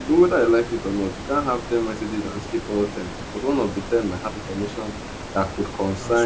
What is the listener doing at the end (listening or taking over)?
listening